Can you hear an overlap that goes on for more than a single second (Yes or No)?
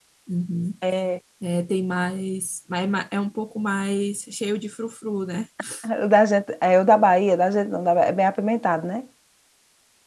No